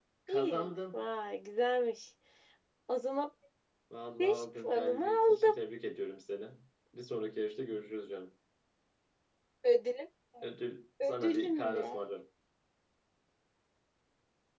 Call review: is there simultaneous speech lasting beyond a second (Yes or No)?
Yes